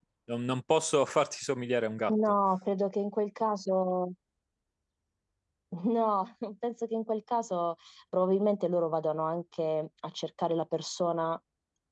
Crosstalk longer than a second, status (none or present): none